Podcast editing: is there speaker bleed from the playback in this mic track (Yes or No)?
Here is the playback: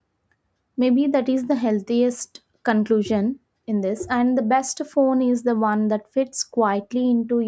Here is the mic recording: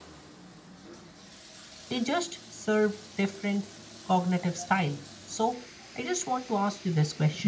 No